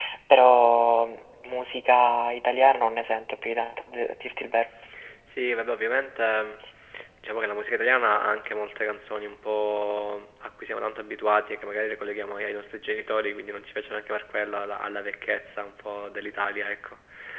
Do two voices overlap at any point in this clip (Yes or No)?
No